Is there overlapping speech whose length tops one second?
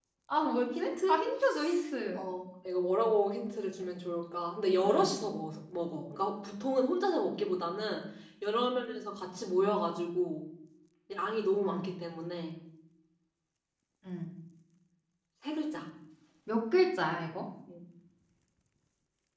No

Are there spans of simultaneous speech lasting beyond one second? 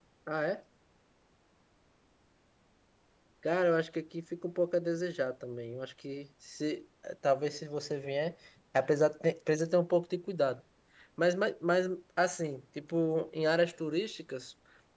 No

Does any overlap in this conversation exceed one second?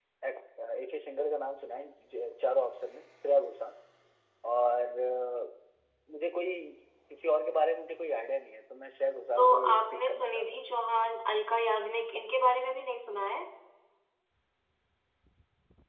Yes, from 9.4 s

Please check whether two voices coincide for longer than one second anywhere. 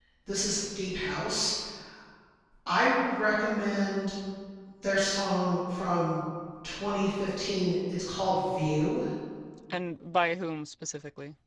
No

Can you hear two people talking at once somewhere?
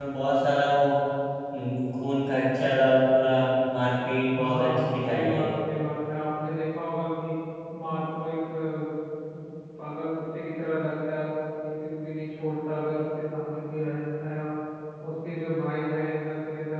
Yes, from 4.3 s

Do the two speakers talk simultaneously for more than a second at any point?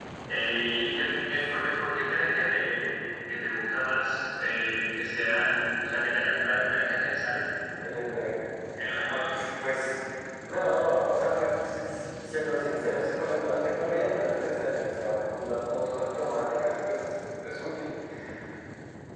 No

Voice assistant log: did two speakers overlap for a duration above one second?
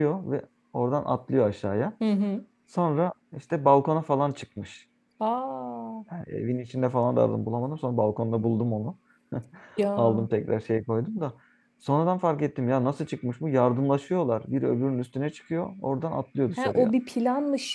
No

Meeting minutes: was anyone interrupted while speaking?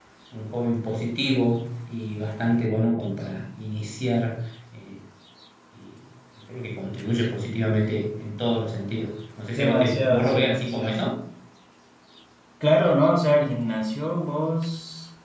Yes, from 9.6 s

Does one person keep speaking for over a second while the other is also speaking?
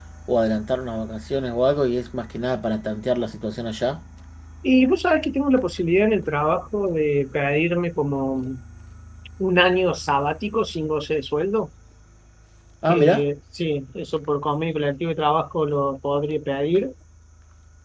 No

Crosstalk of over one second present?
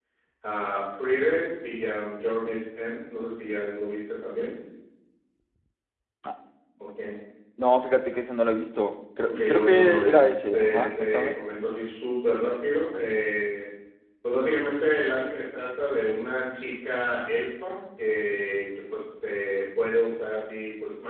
Yes, from 9.2 s

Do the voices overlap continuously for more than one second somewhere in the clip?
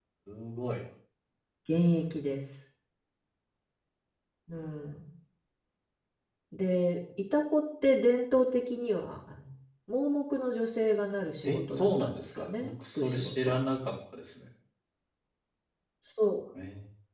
Yes, from 11.4 s

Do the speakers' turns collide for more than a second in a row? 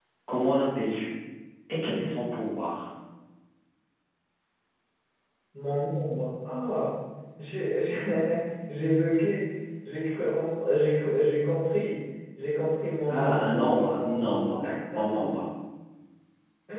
Yes, from 13.1 s

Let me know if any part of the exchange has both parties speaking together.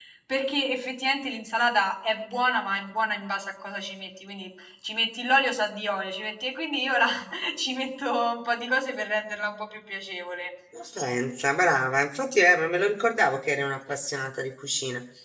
No

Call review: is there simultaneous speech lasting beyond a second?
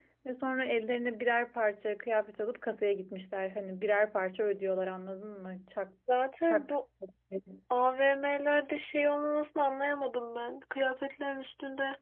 No

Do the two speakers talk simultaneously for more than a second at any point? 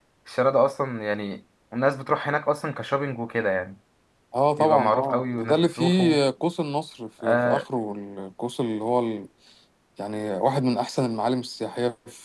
Yes, from 4.6 s

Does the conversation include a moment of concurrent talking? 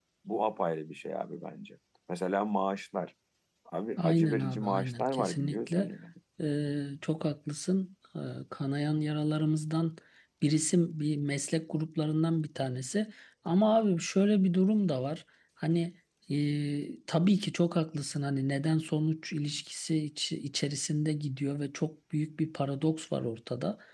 Yes, from 4.0 s

